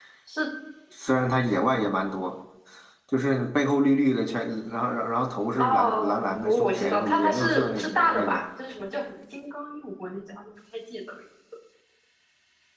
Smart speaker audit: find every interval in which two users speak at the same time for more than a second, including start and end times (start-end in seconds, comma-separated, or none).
5.6-8.4